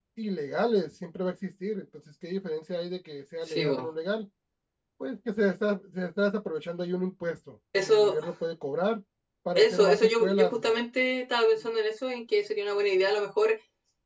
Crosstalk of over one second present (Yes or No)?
Yes